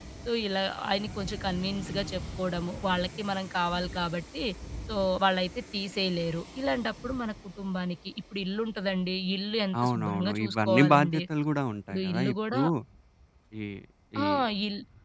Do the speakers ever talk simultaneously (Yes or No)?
Yes